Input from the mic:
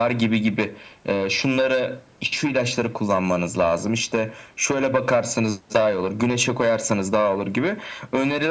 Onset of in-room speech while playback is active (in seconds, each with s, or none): none